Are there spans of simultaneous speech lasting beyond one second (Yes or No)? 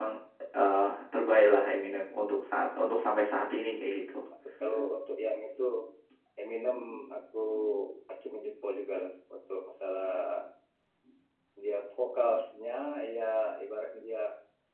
No